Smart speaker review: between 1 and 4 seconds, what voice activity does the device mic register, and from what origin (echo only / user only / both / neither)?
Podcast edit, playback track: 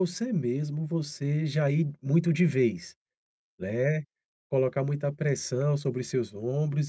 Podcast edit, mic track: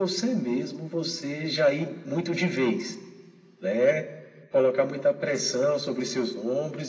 echo only